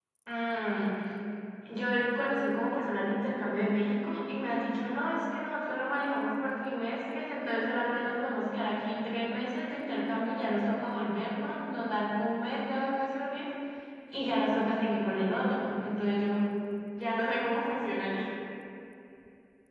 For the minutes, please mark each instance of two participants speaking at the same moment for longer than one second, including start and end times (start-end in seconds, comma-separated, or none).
none